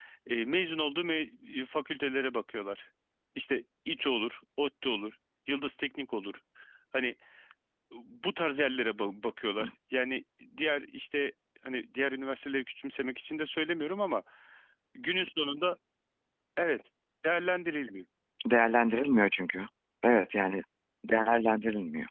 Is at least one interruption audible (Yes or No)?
No